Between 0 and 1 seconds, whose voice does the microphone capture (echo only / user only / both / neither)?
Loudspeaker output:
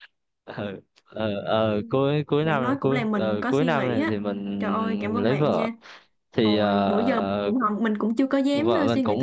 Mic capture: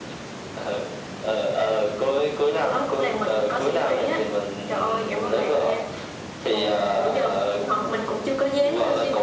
echo only